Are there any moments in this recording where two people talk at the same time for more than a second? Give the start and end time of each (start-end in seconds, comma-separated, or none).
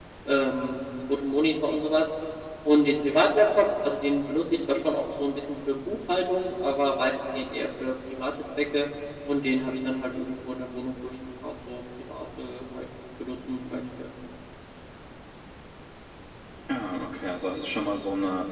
none